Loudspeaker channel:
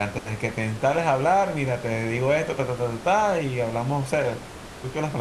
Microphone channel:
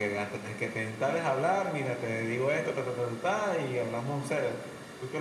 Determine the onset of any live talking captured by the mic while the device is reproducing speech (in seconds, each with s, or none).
none